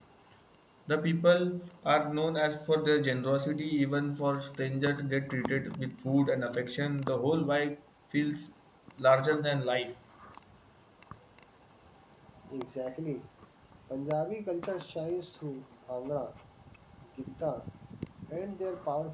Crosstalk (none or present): none